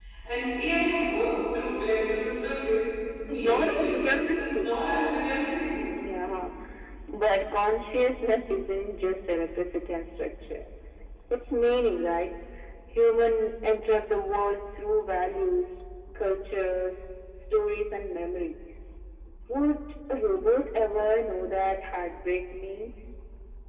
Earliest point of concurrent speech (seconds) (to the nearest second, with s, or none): 3 s